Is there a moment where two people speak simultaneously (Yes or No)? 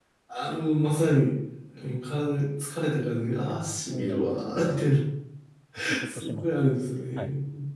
Yes